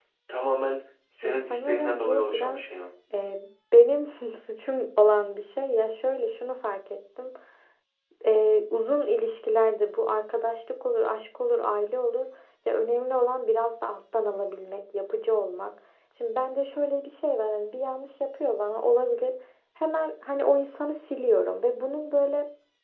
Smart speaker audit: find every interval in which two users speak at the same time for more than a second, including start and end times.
1.2-2.6

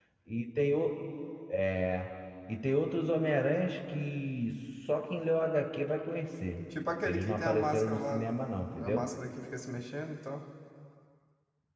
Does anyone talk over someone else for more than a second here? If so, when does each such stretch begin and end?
7.0-8.3

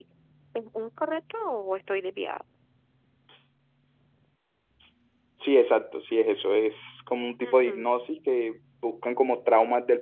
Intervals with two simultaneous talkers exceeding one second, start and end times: none

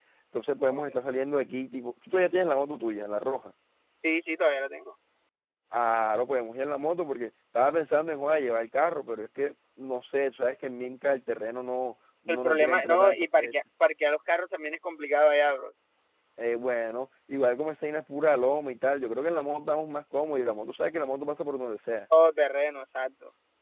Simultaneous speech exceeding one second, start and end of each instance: 12.3-13.5

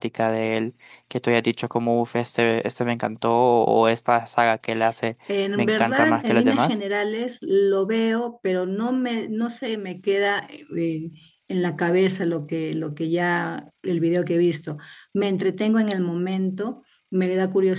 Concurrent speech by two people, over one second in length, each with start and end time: 5.6-6.8

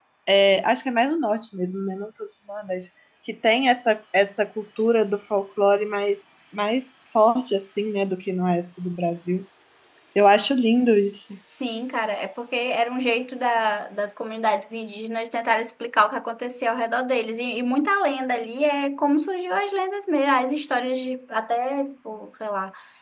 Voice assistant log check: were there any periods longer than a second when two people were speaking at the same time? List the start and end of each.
none

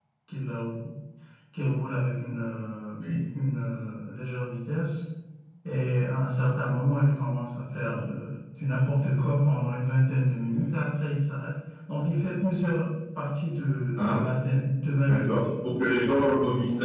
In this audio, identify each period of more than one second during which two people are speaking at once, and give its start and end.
none

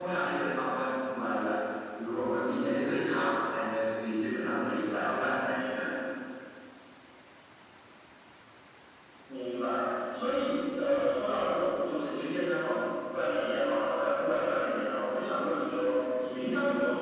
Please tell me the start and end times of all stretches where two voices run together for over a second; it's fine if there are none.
none

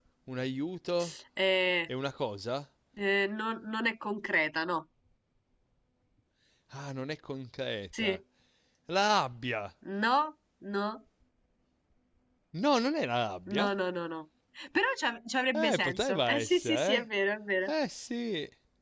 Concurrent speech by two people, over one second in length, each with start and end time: 15.5-17.0

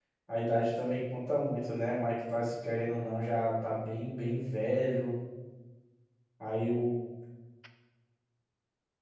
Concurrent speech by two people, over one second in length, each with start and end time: none

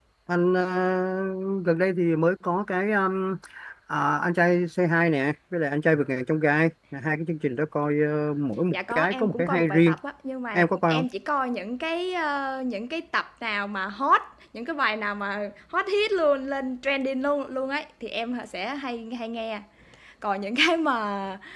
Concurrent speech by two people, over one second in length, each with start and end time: 8.7-9.9

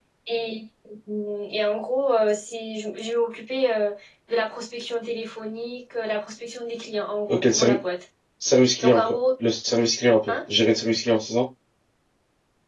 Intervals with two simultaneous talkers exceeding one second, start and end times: none

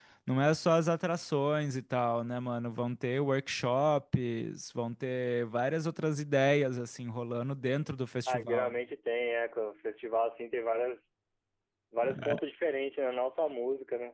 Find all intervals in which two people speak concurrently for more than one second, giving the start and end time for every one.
none

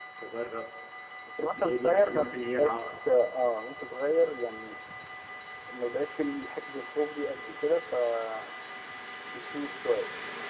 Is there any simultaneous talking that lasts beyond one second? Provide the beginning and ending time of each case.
1.6-3.0

